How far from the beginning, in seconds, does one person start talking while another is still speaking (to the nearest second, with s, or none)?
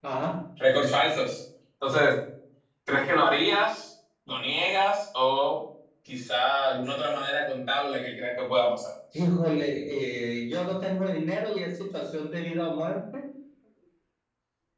none